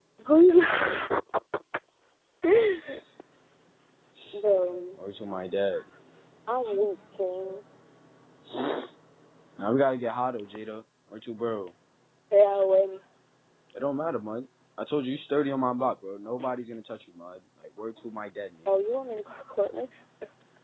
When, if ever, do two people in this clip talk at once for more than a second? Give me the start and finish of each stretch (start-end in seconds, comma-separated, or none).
none